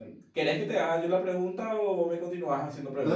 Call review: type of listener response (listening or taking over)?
taking over